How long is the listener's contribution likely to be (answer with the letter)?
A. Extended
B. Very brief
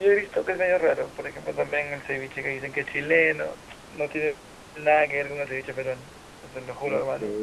B